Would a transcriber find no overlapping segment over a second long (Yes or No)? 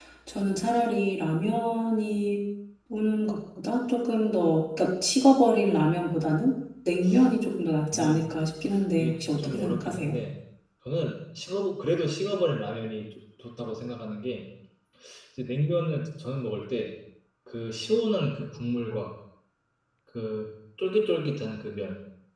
No